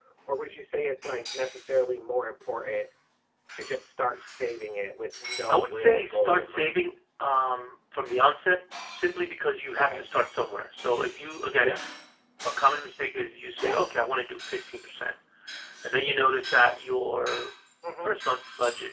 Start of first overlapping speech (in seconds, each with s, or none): 5.4 s